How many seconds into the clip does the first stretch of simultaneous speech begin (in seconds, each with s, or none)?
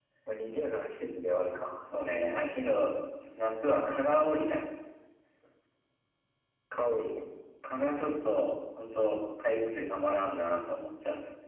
none